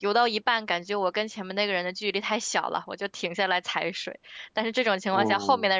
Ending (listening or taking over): listening